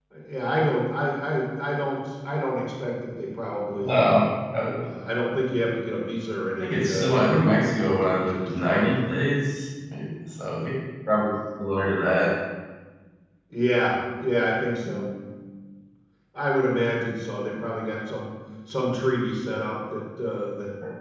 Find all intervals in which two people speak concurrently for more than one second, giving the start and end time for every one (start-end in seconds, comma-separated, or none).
6.6-9.2